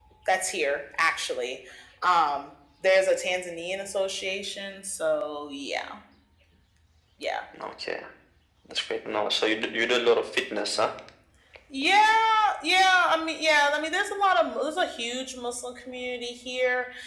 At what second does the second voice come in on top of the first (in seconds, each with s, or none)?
none